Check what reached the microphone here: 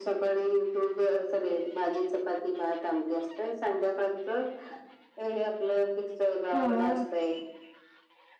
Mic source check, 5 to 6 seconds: echo only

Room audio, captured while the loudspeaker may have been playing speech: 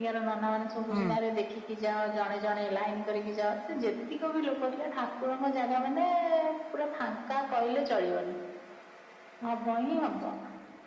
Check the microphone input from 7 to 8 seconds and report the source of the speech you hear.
echo only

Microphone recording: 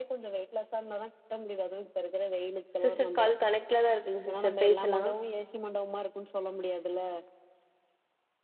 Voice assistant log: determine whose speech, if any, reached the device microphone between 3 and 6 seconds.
both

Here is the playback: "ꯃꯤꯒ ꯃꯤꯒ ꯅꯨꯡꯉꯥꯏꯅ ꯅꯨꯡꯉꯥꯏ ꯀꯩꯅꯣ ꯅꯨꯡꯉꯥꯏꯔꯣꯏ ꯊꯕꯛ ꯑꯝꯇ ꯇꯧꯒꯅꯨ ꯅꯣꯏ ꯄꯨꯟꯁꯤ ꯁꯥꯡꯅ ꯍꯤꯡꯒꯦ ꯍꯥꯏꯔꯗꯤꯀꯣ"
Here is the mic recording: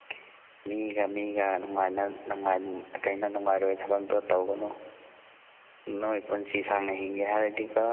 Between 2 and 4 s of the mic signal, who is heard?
echo only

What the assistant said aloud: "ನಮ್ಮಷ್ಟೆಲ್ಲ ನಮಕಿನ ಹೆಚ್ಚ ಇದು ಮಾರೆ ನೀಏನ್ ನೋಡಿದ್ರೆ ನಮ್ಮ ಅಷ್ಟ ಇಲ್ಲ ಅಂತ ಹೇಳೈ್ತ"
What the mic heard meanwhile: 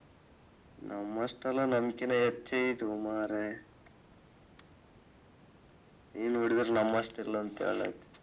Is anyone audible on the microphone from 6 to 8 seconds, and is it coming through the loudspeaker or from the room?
echo only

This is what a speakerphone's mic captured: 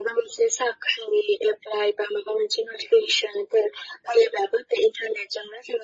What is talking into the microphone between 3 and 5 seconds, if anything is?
echo only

